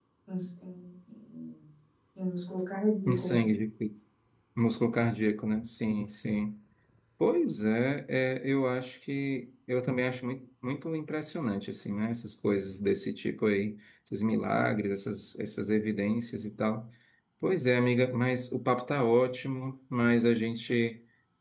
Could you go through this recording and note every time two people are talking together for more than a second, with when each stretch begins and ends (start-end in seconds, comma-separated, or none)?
none